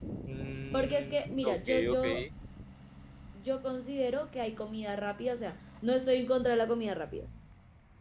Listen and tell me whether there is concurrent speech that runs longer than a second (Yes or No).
Yes